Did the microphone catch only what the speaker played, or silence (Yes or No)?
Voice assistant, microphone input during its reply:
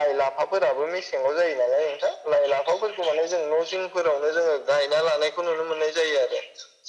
Yes